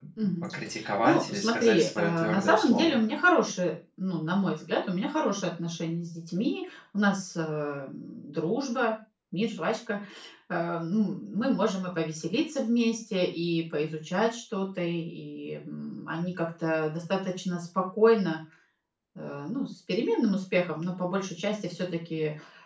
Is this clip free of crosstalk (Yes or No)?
No